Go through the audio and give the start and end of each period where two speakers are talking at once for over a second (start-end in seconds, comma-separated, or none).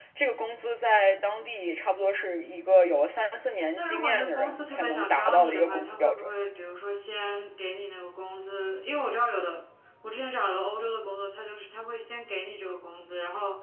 3.8-6.3